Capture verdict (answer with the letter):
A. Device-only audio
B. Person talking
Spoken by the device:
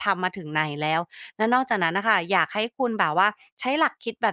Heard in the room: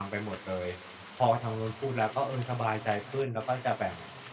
B